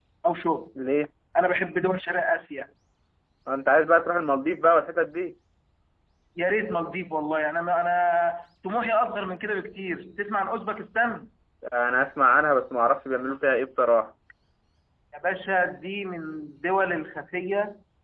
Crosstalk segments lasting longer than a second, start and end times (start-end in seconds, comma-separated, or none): none